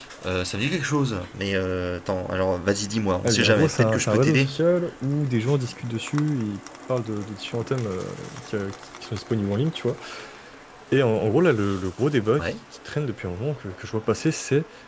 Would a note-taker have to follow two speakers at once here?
Yes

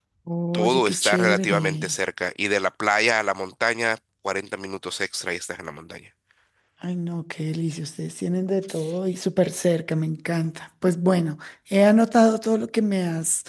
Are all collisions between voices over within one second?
No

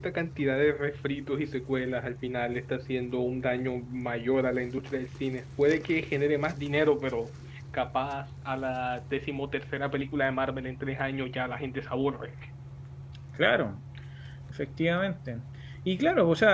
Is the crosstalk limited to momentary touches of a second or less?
Yes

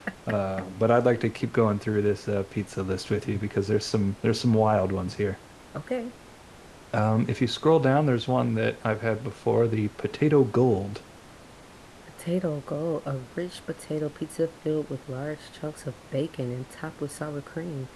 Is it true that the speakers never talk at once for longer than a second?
Yes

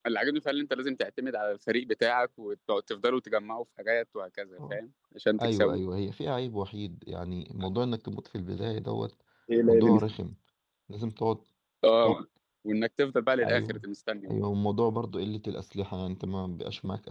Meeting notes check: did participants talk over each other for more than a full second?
No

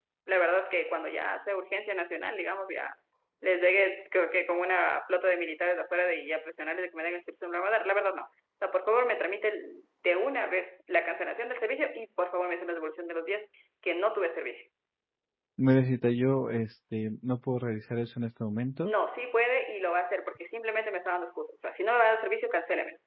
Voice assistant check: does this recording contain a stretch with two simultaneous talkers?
No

